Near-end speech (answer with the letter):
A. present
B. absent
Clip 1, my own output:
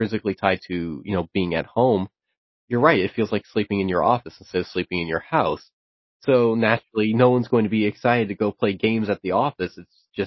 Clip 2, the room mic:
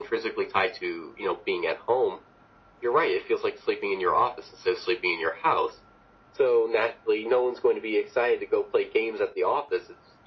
B